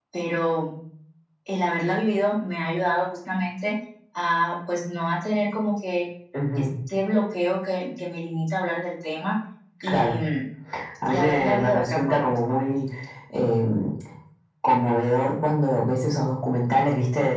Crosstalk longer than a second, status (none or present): present